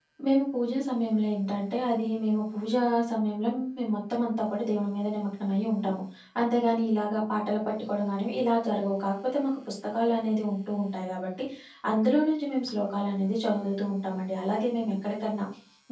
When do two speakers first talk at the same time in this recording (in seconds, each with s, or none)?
none